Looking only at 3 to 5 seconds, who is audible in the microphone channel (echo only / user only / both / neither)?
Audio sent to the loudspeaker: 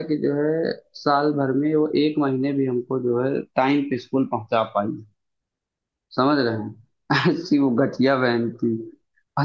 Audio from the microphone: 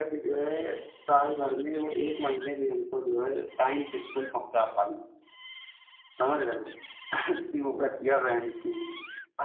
echo only